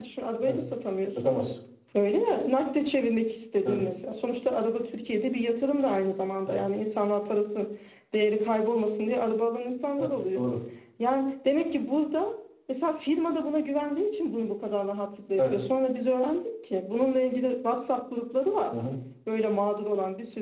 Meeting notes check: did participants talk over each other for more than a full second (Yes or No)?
No